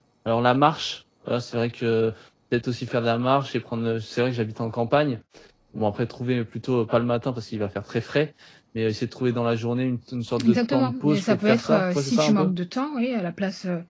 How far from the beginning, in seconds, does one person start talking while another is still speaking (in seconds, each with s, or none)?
10.4 s